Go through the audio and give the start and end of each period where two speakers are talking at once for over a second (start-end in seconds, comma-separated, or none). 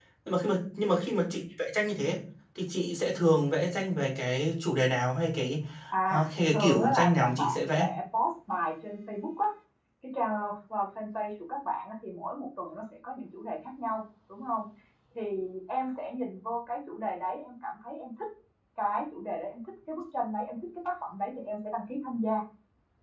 6.1-7.9